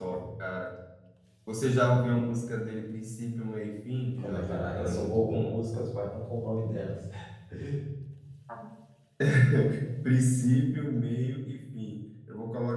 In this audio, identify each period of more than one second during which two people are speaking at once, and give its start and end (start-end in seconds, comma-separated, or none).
4.2-5.6